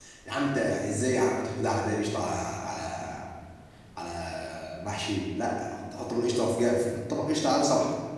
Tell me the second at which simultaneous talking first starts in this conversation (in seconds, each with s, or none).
none